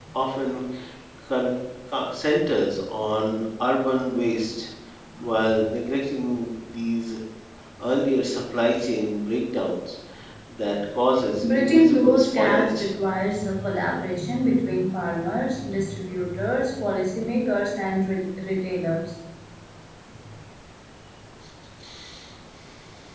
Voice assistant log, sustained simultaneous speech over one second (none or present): present